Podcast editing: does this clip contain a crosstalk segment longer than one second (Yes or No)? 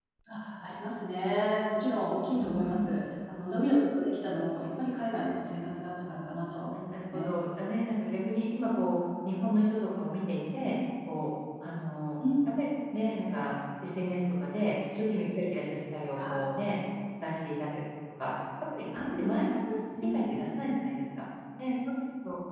No